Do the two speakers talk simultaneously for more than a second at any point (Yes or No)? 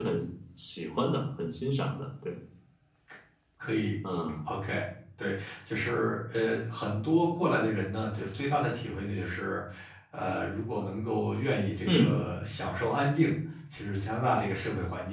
No